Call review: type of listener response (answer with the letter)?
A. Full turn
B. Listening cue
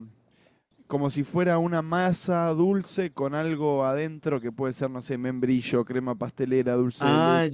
A